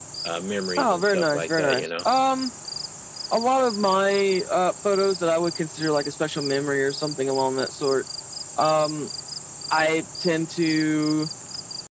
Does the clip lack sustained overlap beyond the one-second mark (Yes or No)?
No